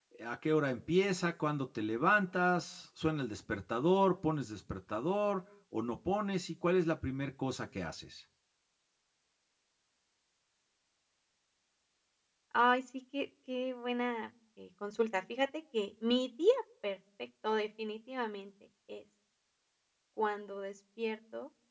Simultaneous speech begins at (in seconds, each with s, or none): none